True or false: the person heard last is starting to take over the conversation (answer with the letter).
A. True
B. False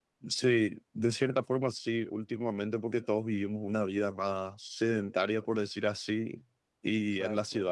B